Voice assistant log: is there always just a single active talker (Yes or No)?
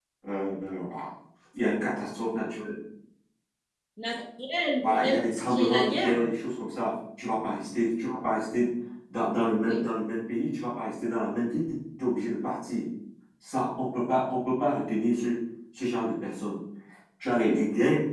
No